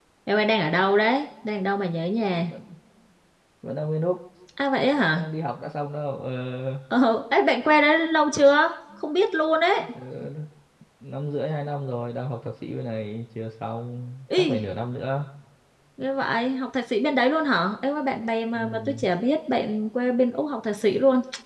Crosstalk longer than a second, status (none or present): none